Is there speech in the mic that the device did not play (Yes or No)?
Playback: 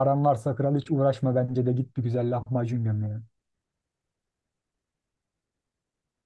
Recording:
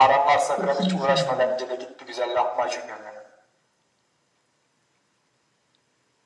Yes